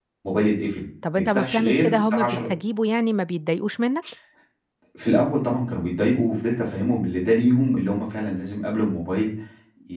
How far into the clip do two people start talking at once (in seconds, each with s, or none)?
1.2 s